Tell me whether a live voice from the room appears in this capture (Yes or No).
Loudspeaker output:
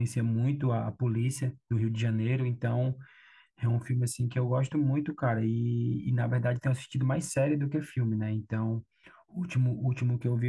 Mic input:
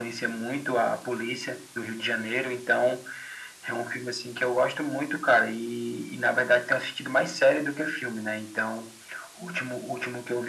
No